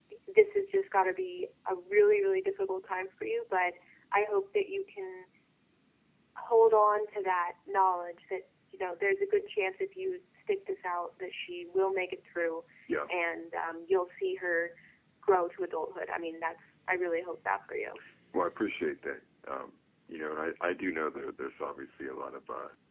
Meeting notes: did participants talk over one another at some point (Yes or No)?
No